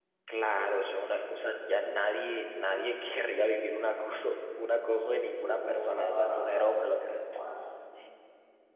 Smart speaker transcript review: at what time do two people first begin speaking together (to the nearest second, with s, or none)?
5 s